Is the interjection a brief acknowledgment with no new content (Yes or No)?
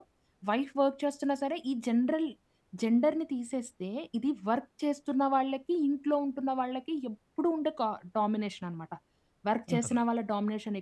Yes